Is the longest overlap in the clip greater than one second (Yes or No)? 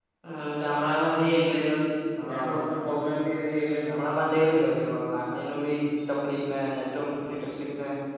No